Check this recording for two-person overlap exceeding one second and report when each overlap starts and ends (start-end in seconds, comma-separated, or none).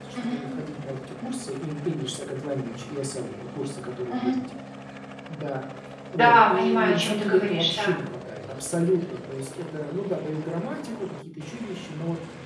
6.2-7.9